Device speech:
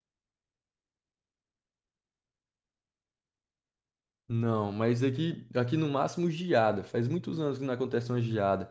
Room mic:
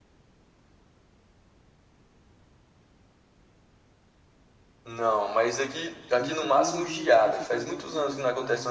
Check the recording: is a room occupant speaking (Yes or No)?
Yes